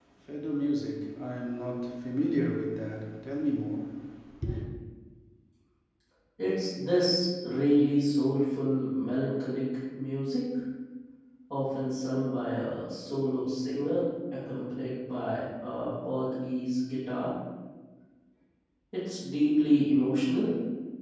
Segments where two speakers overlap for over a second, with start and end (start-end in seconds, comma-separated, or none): none